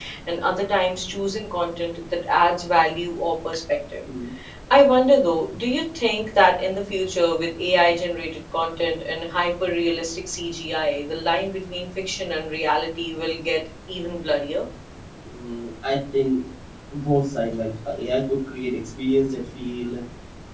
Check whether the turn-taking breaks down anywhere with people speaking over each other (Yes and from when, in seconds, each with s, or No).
No